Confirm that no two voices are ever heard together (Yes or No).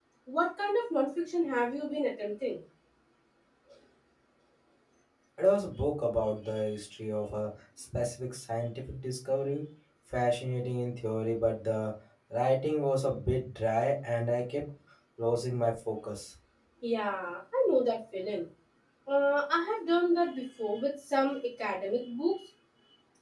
Yes